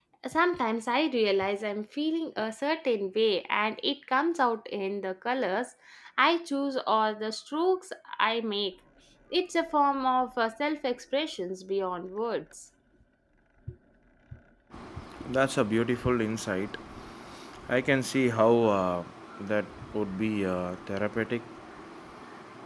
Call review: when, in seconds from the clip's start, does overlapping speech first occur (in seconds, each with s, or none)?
none